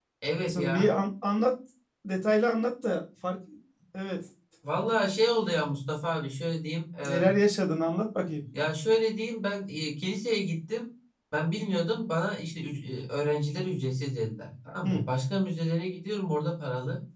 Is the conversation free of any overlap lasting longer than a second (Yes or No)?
Yes